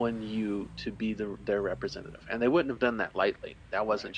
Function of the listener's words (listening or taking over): listening